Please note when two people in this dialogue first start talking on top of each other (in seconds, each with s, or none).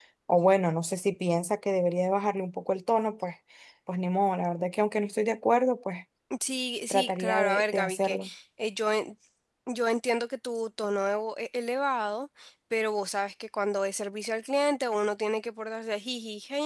6.9 s